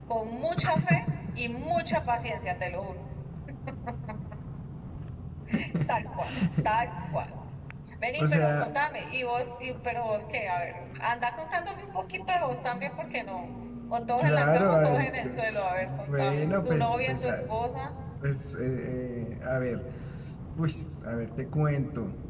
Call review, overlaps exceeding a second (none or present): present